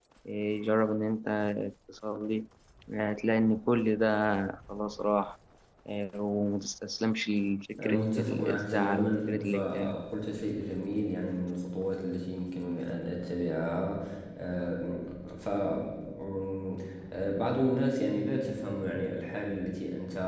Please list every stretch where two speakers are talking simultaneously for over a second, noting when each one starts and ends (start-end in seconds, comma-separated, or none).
7.8-10.0